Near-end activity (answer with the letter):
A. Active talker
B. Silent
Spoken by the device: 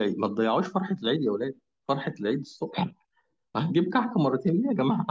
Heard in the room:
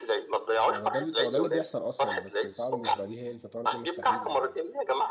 A